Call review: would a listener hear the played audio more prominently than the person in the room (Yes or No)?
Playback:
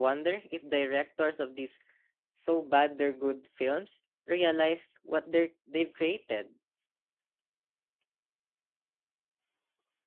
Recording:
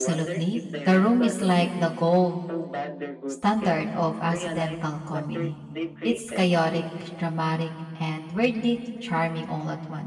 No